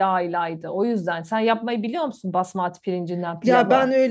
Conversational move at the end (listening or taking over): taking over